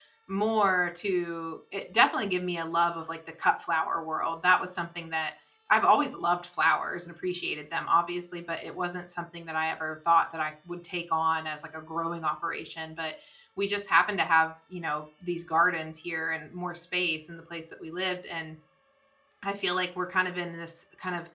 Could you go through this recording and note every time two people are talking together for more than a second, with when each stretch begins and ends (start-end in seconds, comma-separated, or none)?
none